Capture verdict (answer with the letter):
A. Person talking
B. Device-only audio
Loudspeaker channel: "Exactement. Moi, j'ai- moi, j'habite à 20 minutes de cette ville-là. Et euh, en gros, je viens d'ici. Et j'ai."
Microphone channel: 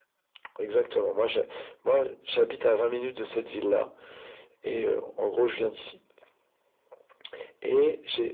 B